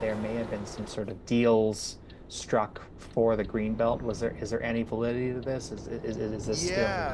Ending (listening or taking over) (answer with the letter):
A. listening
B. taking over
B